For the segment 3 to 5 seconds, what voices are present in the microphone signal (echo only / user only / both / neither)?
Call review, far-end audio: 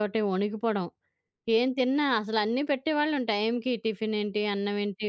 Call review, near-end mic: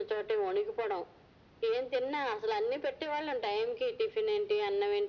echo only